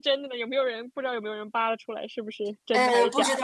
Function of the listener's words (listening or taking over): taking over